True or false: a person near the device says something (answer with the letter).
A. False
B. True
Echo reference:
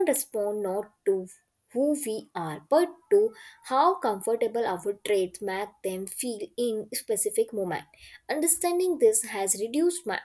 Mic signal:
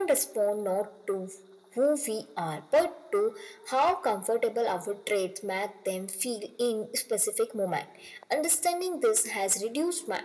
A